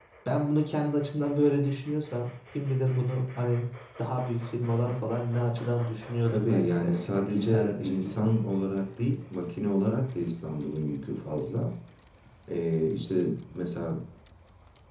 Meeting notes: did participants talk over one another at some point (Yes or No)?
Yes